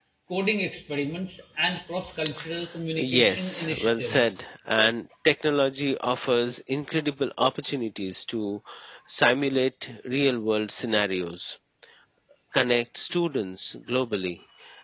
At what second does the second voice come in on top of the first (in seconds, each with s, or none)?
3.0 s